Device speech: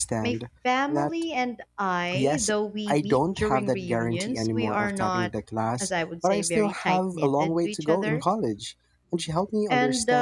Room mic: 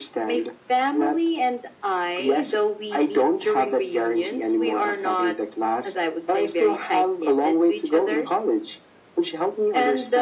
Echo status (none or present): present